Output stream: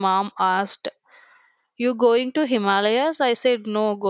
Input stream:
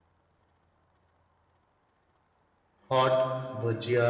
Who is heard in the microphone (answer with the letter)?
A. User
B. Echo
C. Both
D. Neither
A